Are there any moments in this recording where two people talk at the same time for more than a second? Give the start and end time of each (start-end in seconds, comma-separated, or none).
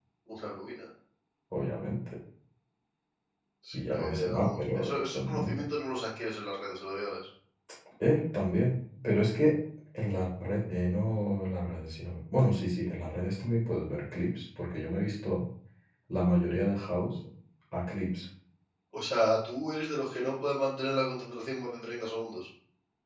3.7-5.6